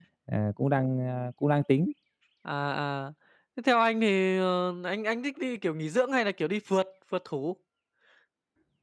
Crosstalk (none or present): none